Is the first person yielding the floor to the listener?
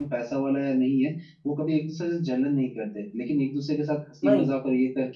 No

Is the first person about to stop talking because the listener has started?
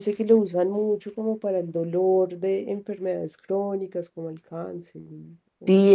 Yes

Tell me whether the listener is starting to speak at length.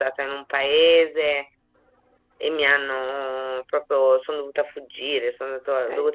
No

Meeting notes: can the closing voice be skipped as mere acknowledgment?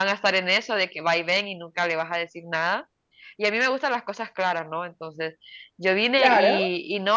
Yes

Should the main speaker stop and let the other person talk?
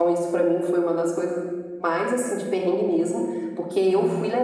No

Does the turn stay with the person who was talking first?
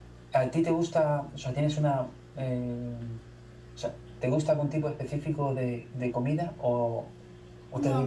No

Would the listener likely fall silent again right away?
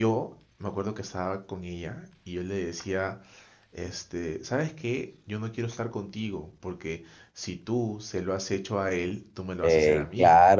No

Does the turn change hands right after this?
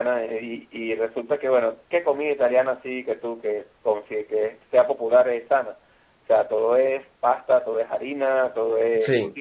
No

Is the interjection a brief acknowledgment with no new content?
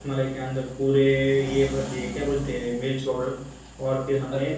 Yes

